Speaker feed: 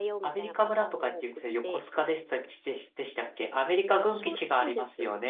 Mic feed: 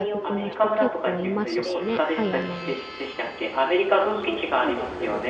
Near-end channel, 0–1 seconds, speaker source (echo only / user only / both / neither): both